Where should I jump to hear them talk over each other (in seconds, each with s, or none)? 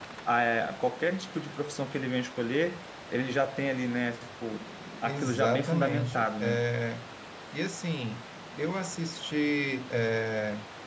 5.0 s